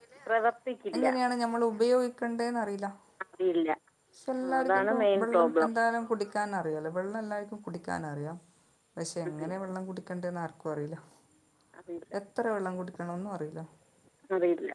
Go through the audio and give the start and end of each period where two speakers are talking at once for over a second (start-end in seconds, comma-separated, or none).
4.4-5.7